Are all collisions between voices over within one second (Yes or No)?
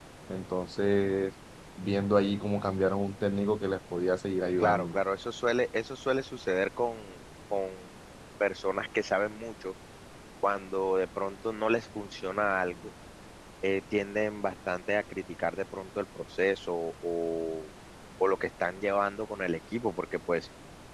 Yes